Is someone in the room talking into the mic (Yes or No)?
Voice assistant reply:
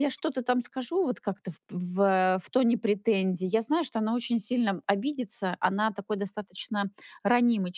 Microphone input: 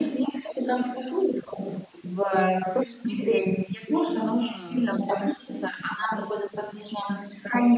Yes